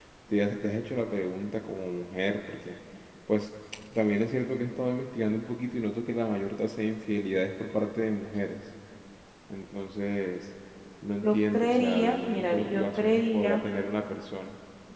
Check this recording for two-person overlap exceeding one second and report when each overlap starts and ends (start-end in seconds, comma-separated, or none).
11.2-13.6